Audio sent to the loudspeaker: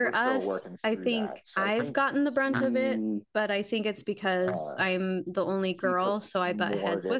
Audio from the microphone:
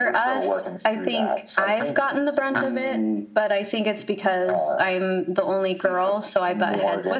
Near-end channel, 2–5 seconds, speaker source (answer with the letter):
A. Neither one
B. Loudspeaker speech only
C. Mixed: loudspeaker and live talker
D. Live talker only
B